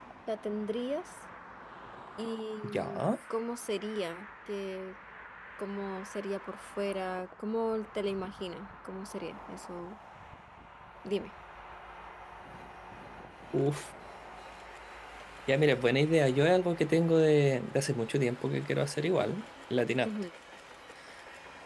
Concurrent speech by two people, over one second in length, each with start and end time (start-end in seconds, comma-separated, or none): none